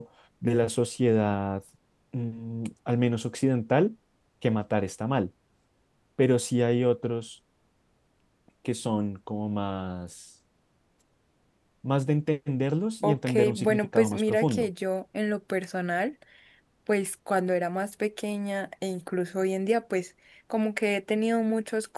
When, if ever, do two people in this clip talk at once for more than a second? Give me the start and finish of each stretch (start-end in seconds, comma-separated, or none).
13.0-14.7